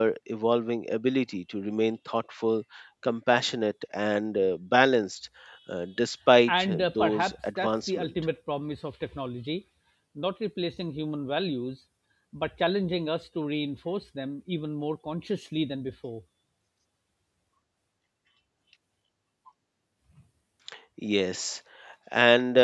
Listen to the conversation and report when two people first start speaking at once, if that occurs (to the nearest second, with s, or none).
6 s